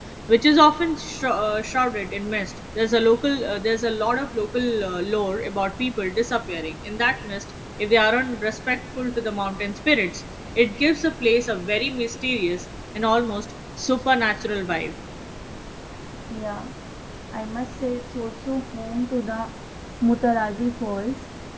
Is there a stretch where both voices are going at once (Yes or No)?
No